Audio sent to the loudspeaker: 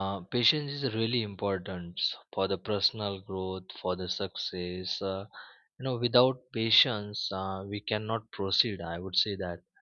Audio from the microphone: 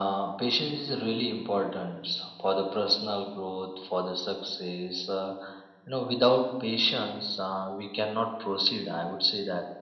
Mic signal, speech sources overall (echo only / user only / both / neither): echo only